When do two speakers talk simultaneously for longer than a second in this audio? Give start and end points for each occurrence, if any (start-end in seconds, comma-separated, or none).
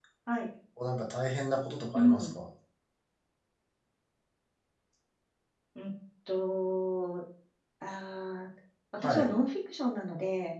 none